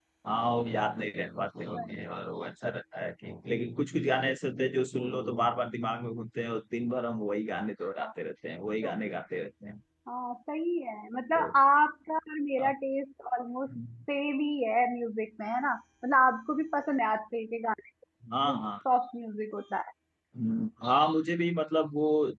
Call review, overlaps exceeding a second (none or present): none